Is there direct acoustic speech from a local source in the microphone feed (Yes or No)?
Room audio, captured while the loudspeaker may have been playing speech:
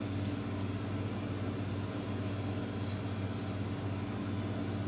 No